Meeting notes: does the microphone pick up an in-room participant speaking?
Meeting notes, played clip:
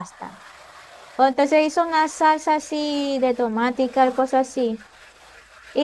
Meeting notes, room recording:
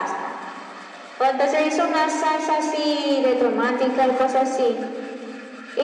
No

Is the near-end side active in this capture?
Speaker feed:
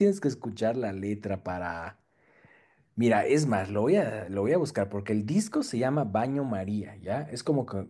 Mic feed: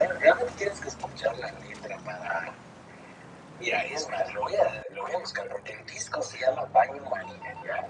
No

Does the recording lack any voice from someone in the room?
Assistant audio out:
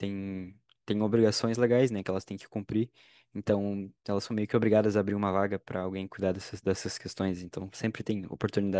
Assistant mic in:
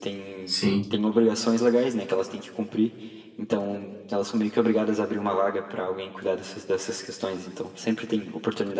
No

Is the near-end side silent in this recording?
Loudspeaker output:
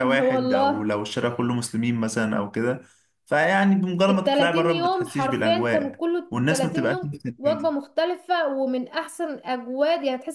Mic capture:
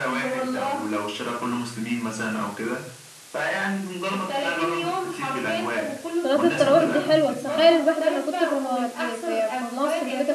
No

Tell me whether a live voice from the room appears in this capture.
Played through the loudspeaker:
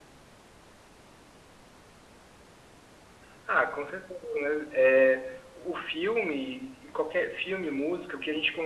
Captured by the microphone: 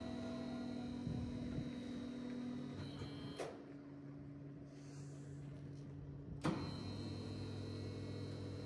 No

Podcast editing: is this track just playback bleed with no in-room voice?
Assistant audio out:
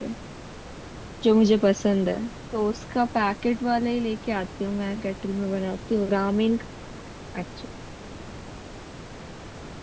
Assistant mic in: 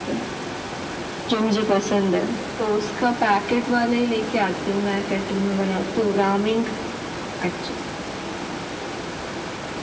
Yes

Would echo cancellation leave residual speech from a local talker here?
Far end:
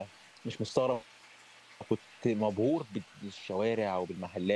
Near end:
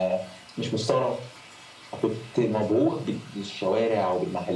No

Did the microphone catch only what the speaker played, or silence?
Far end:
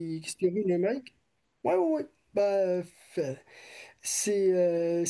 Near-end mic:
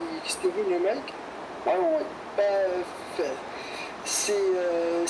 Yes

